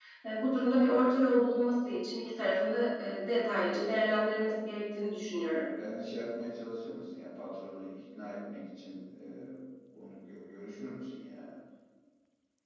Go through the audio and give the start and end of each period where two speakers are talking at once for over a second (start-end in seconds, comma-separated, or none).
none